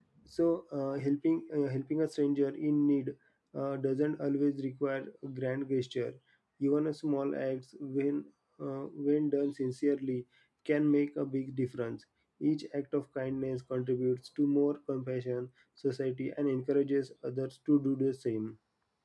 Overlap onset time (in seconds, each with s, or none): none